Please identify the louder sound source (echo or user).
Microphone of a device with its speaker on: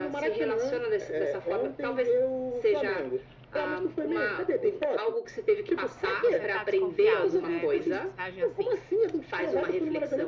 echo